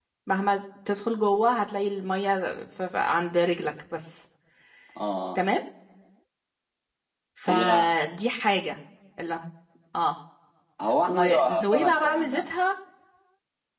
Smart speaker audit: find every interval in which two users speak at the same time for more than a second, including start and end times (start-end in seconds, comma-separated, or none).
11.1-12.5